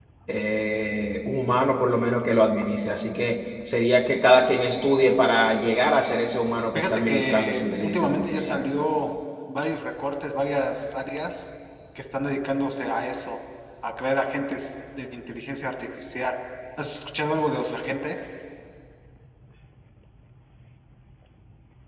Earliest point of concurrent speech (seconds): 6.8 s

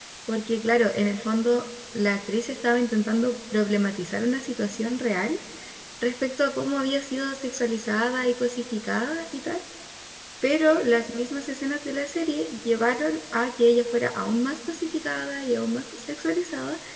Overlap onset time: none

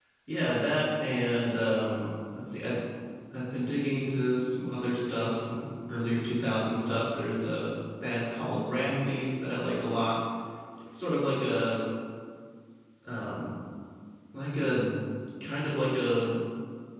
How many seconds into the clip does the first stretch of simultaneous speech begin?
none

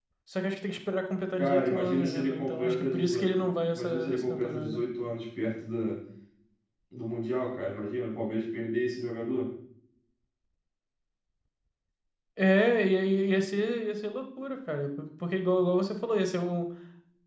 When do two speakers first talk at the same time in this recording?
1.4 s

